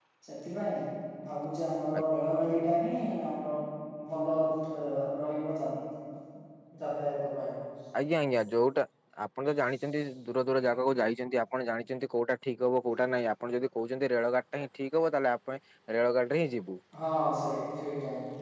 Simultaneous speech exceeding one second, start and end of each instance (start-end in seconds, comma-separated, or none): none